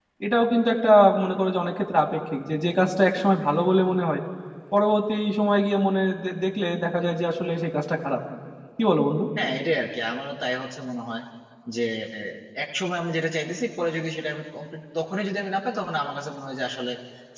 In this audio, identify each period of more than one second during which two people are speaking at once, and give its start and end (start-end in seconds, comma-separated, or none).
none